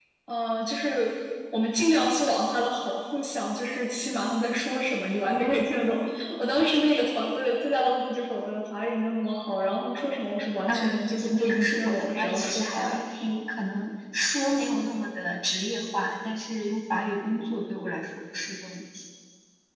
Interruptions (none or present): present